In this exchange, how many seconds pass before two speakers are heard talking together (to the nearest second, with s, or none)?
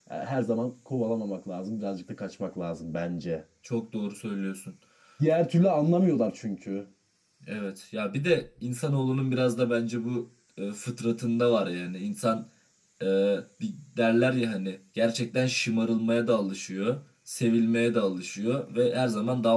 none